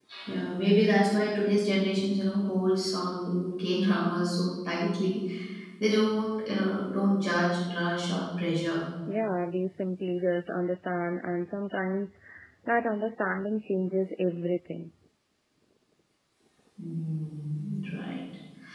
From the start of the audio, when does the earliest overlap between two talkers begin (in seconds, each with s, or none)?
none